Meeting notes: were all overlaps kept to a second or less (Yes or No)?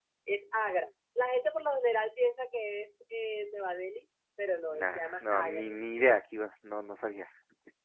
No